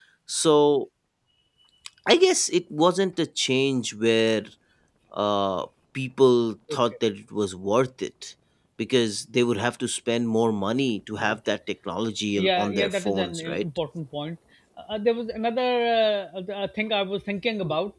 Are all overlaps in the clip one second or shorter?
No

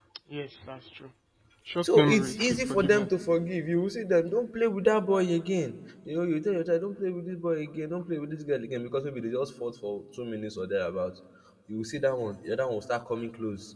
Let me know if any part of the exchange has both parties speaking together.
Yes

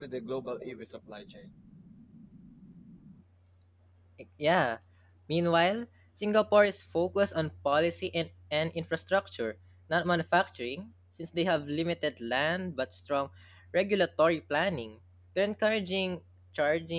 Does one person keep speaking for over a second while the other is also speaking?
No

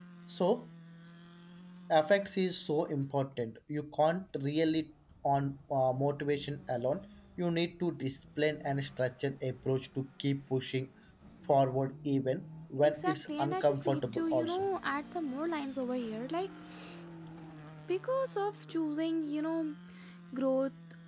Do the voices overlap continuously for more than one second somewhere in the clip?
Yes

